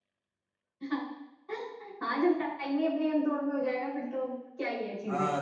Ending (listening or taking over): taking over